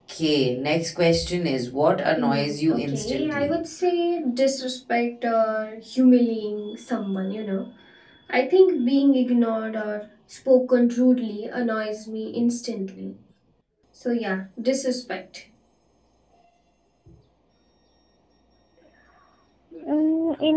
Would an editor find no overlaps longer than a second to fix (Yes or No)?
No